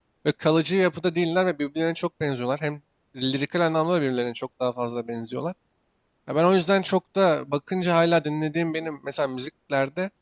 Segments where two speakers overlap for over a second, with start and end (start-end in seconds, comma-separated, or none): none